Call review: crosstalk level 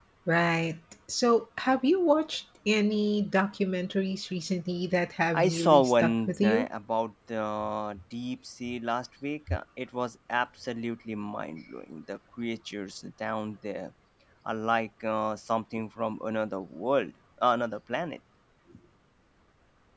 present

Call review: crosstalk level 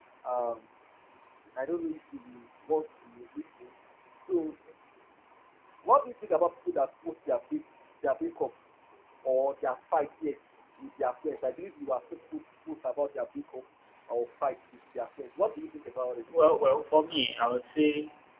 none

